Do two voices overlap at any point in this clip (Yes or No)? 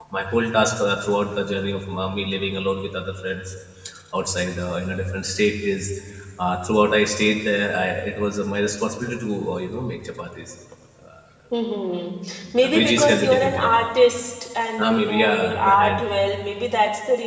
Yes